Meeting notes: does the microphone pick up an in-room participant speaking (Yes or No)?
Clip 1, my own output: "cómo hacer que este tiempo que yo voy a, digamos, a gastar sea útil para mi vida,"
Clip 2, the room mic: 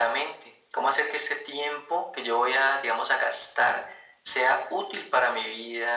No